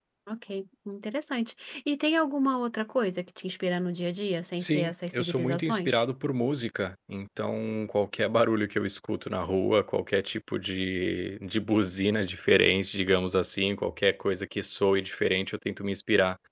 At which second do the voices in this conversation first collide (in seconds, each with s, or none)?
4.6 s